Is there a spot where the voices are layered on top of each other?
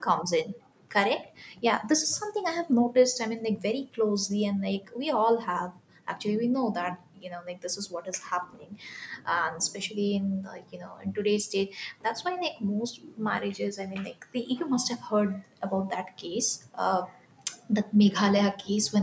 No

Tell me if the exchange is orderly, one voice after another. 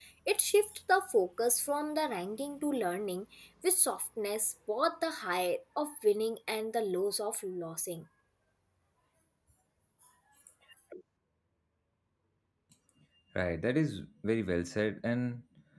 Yes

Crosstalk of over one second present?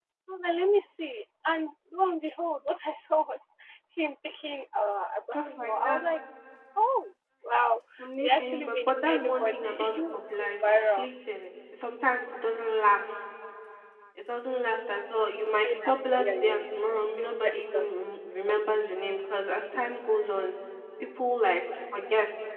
Yes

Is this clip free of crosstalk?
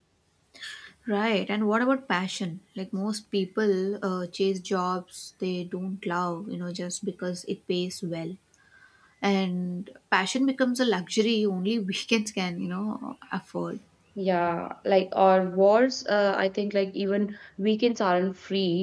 Yes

